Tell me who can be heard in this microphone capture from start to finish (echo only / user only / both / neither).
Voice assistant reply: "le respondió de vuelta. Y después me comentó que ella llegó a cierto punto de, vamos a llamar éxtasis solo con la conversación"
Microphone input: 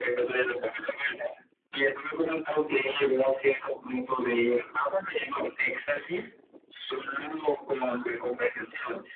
echo only